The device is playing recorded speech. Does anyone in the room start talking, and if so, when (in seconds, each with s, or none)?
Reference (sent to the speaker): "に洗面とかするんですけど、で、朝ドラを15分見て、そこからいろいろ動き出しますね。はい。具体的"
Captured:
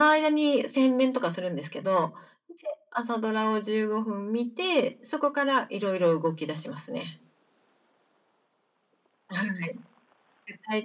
none